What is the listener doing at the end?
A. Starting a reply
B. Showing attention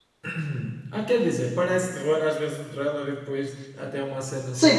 A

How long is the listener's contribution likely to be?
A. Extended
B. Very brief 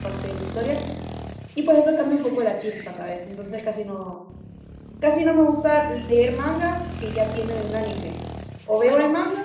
B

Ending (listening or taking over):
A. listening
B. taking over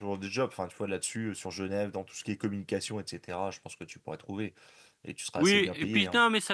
B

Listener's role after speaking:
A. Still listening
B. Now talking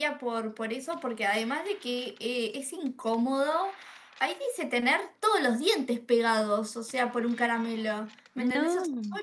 A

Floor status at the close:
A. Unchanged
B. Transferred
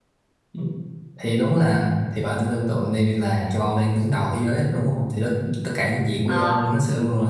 A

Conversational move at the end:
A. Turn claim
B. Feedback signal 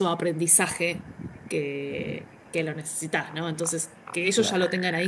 B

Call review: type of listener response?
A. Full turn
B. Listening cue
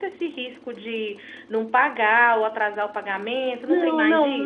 A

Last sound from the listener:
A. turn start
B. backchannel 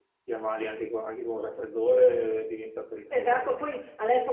A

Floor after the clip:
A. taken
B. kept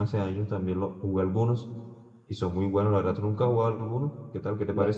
A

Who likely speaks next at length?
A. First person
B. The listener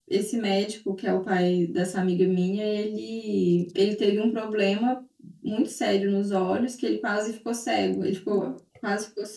A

